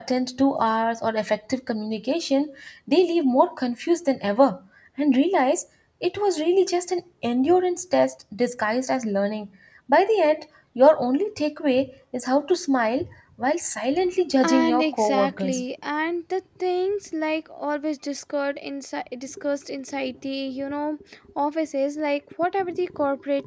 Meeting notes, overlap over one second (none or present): present